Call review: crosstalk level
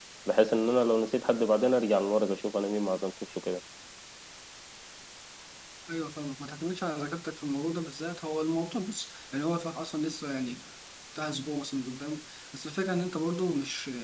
none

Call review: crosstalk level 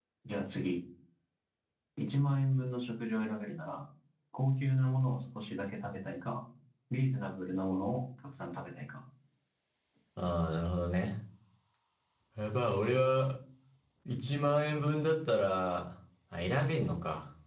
none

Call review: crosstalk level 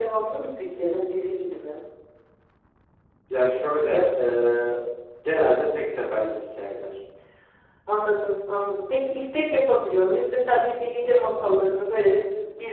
none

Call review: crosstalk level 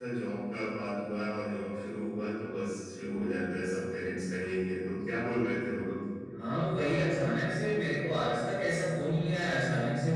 none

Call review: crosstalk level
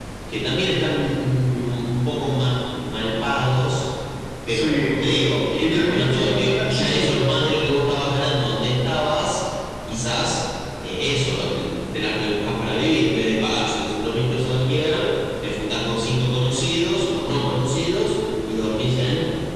present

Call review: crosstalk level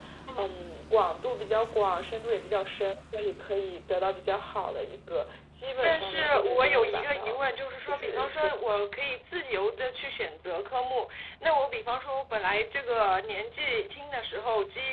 present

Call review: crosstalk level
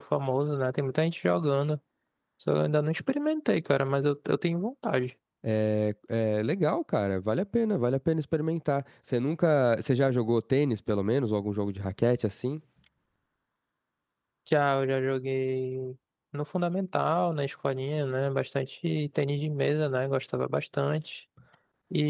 none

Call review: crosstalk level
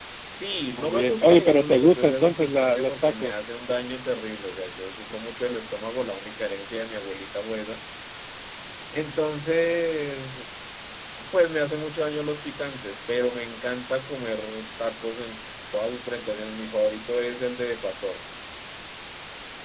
present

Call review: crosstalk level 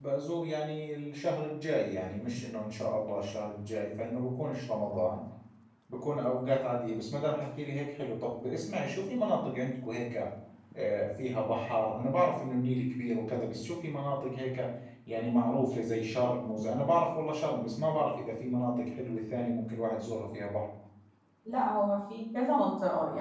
none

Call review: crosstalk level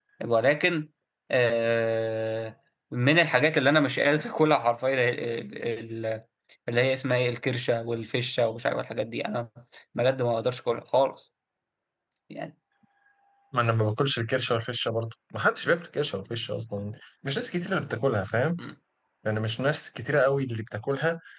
none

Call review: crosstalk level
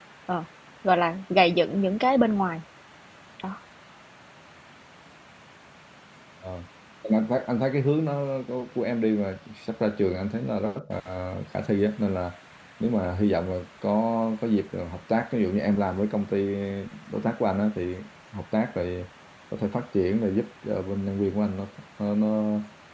none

